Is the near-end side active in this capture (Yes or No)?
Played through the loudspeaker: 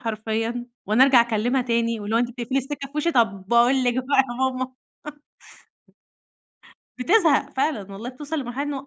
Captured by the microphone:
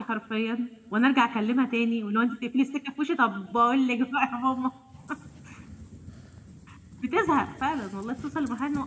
No